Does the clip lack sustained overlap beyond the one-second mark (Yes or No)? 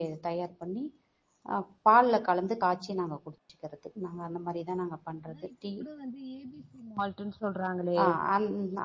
Yes